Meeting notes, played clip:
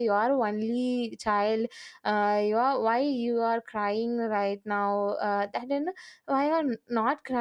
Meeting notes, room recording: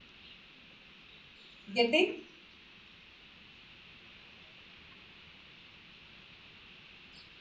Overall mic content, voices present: user only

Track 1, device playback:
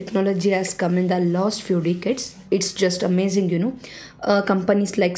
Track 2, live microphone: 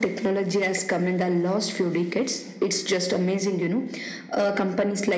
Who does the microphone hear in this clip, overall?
echo only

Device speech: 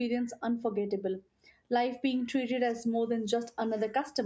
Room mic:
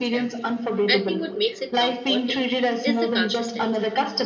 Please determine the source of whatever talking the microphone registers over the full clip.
both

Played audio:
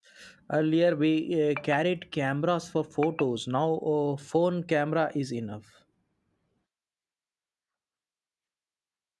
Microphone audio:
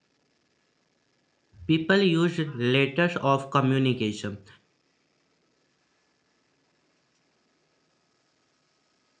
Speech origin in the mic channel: user only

